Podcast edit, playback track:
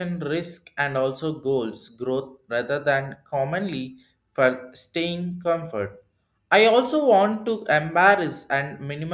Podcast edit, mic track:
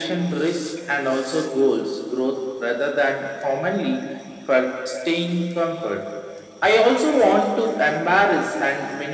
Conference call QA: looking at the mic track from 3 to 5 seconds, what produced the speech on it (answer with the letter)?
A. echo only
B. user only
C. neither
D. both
A